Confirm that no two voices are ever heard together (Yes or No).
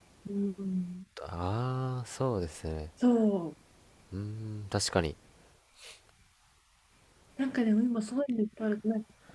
Yes